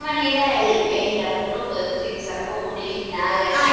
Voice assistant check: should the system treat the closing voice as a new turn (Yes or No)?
Yes